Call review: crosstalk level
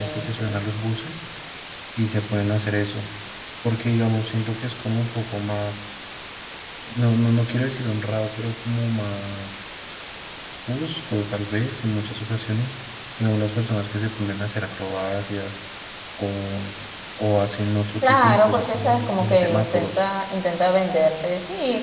present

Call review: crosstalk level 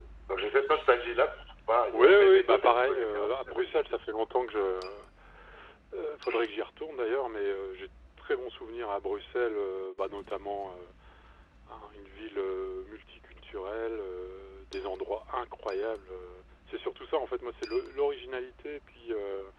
present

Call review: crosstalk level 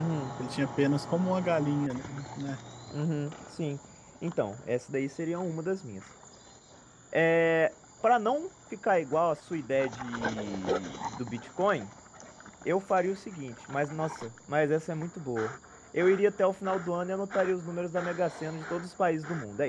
none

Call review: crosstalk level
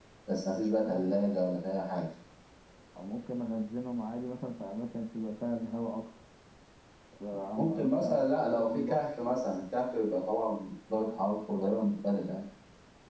present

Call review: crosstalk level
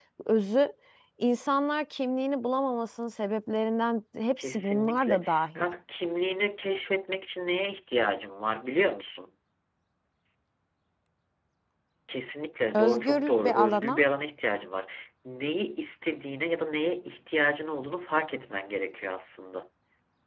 present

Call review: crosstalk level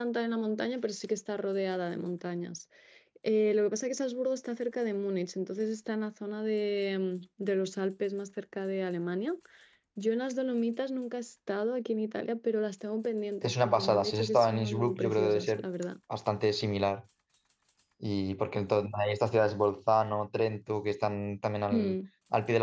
present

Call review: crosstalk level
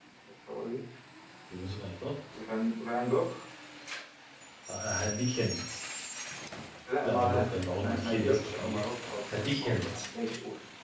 present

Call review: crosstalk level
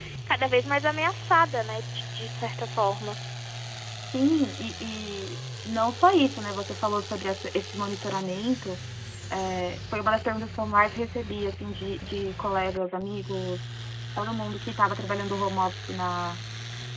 none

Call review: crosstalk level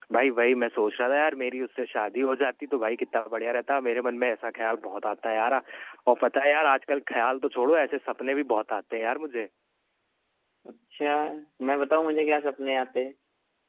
none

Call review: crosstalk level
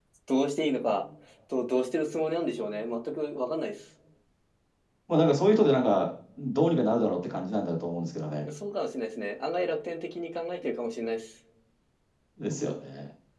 none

